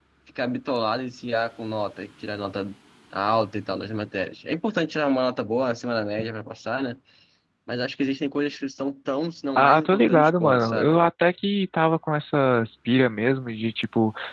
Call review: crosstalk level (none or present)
present